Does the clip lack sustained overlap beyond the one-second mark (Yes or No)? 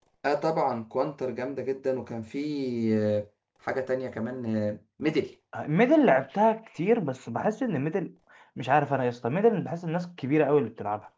Yes